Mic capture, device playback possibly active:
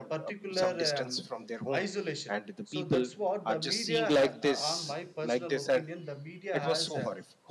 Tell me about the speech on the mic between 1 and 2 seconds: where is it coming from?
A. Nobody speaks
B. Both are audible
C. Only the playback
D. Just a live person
B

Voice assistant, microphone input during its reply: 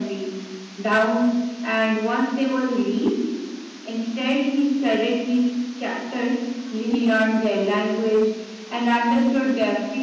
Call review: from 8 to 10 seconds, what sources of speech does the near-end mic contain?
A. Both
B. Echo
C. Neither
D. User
B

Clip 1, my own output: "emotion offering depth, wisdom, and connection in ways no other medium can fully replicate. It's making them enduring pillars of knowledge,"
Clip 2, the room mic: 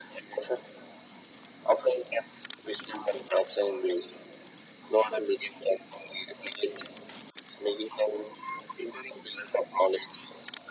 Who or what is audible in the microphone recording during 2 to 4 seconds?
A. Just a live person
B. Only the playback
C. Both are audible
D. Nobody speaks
B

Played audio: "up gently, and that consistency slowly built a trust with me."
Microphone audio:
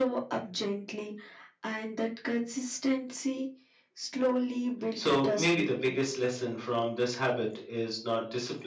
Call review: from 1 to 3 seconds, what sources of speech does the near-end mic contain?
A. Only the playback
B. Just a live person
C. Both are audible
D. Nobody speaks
A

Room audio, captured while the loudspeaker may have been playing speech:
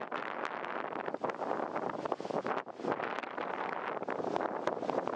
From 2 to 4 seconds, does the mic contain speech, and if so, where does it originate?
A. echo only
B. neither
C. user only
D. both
B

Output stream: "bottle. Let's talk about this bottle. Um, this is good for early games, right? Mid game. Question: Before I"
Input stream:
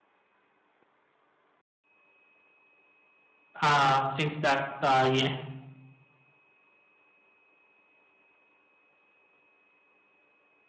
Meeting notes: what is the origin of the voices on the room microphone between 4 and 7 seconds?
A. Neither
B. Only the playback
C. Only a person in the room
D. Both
C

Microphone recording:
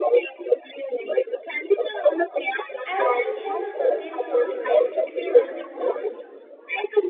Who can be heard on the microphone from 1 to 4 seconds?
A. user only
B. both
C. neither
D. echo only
B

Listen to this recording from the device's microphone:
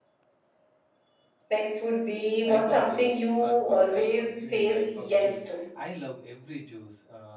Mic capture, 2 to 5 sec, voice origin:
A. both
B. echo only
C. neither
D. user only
A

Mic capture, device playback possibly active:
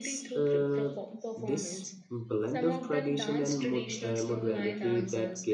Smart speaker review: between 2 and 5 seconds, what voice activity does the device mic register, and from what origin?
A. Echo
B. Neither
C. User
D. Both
D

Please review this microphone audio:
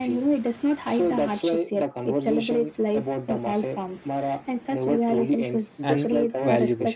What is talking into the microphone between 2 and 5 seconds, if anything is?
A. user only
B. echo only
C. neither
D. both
B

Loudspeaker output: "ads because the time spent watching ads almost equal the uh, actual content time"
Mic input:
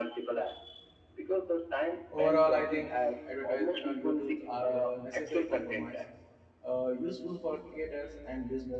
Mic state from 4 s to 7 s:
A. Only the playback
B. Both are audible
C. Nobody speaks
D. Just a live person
B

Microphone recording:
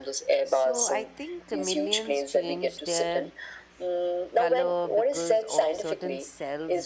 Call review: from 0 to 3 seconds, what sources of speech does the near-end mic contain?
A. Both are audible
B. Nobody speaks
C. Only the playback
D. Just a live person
A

